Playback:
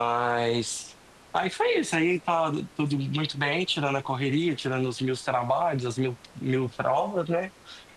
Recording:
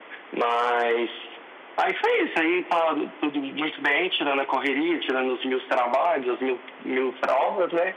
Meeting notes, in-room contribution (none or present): none